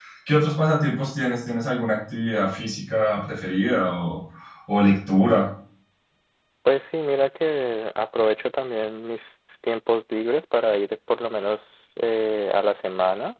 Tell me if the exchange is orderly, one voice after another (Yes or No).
Yes